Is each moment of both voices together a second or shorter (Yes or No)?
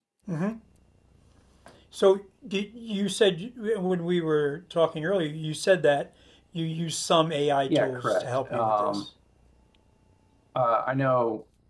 No